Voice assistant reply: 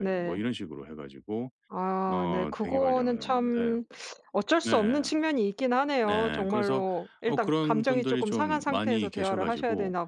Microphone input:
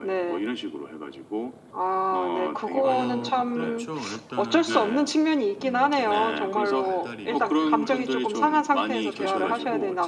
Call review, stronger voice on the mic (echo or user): echo